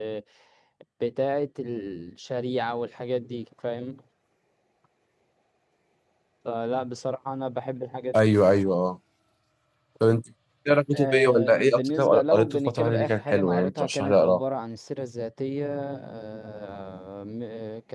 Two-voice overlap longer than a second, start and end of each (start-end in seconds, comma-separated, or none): 10.9-14.4